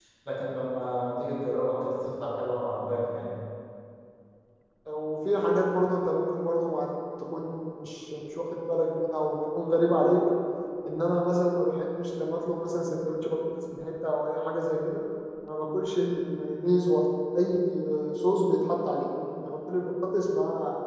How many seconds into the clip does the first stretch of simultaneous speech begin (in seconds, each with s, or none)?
none